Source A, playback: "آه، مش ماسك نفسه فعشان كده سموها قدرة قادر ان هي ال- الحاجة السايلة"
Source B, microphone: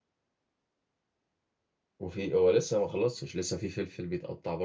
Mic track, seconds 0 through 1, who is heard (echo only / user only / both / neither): neither